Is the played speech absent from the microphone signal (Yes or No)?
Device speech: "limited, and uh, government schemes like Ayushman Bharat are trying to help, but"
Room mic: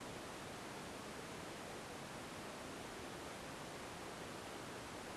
Yes